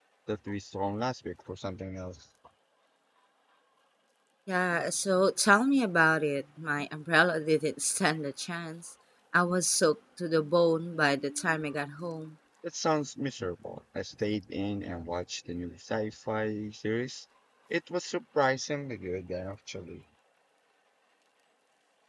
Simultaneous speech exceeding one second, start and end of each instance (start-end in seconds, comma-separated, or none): none